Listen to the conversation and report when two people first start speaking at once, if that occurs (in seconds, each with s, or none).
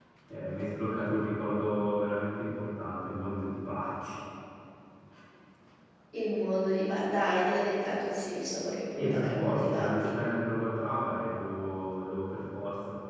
9.0 s